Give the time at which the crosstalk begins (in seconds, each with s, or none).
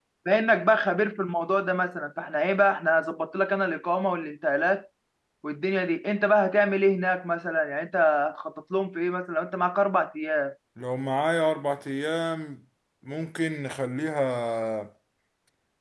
none